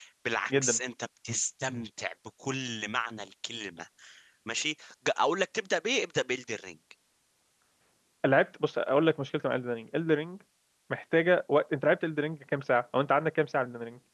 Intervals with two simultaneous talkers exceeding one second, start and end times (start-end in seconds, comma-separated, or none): none